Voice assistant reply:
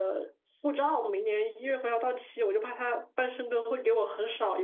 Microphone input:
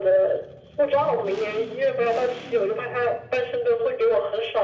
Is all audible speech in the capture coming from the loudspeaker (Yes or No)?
Yes